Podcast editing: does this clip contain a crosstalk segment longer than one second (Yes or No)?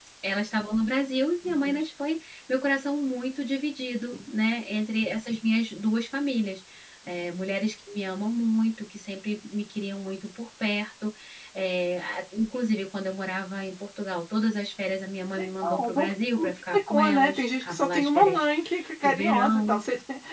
Yes